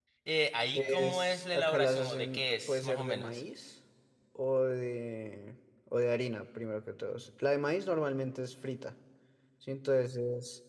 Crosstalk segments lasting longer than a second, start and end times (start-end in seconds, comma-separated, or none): 0.8-3.4